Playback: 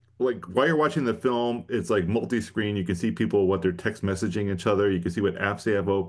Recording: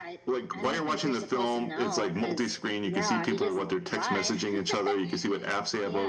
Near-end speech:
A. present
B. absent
A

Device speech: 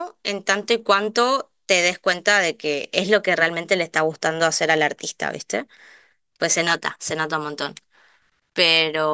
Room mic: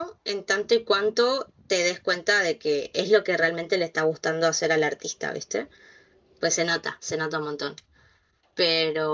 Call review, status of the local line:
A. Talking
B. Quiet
B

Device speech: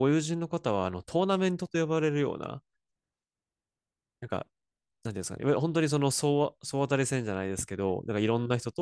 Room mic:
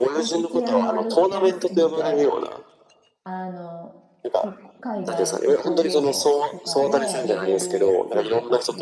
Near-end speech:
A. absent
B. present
B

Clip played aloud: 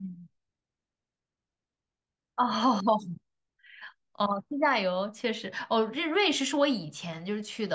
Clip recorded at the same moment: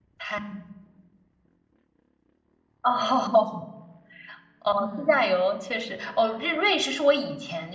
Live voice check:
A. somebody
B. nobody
A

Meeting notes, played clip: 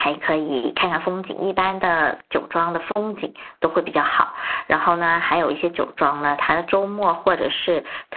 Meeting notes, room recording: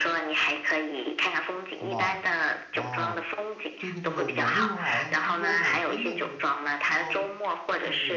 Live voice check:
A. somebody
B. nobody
A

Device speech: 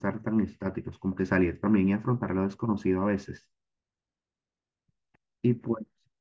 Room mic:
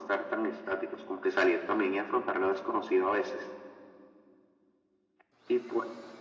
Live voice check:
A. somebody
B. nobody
B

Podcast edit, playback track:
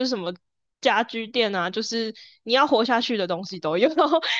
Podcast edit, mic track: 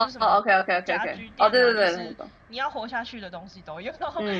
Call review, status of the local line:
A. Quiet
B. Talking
B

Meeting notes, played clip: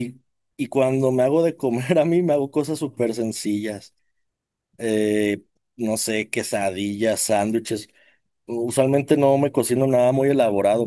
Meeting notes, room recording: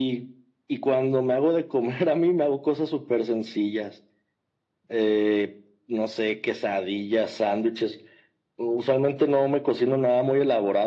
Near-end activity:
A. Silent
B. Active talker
A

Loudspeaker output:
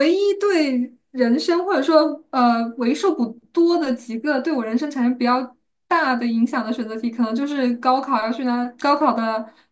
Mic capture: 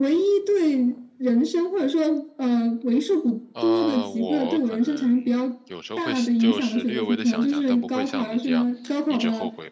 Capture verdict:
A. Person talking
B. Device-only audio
A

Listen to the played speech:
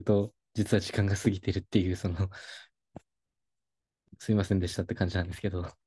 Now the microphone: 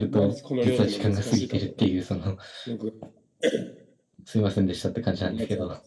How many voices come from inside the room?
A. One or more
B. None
A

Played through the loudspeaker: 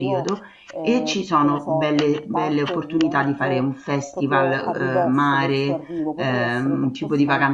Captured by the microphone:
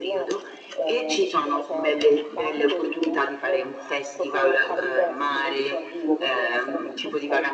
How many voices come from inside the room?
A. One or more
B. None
B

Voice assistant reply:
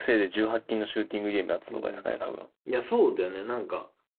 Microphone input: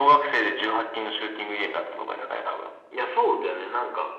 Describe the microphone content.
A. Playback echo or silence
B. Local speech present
A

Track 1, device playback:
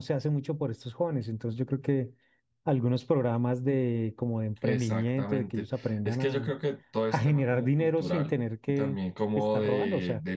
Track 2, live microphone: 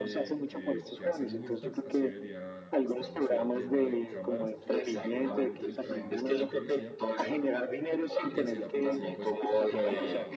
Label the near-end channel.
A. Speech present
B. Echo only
A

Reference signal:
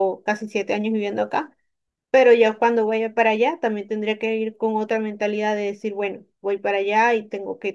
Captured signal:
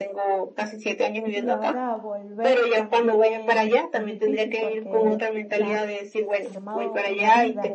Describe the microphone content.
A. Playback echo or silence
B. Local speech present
B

